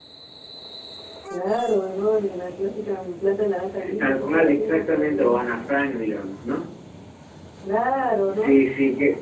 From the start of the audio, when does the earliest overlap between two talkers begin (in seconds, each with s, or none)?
3.8 s